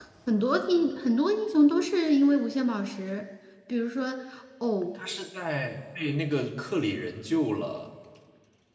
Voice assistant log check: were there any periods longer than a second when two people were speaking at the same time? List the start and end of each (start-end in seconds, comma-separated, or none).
none